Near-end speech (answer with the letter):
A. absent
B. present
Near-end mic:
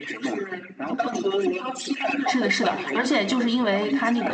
B